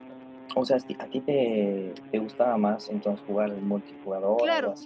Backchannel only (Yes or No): No